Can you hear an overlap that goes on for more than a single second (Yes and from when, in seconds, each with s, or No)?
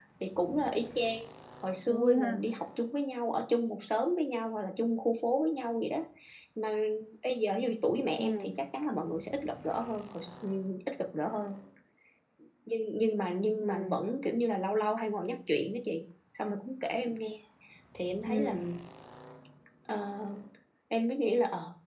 No